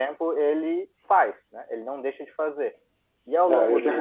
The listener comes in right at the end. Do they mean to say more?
Yes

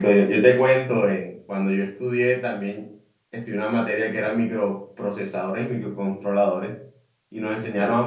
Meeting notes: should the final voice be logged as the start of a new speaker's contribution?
No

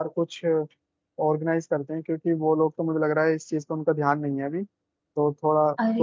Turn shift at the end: Yes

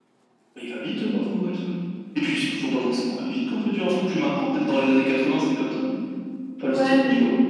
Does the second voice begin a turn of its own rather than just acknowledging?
Yes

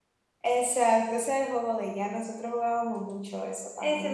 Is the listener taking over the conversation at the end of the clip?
Yes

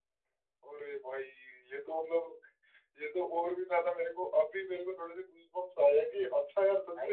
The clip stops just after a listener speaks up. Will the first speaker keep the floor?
Yes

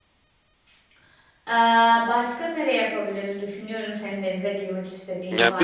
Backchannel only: No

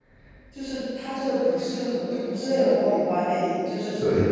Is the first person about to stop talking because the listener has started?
No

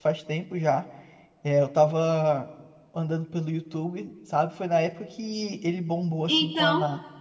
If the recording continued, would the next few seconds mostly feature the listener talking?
No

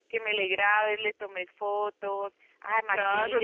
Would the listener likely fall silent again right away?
No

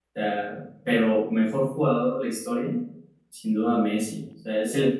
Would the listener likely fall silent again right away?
Yes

